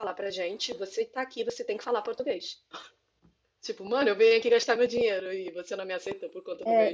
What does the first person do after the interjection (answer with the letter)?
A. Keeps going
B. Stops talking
B